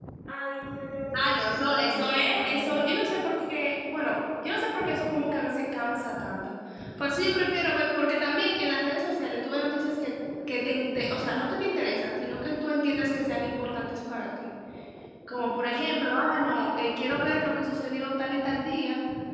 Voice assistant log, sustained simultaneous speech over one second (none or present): present